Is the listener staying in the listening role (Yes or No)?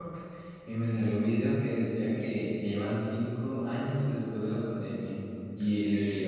Yes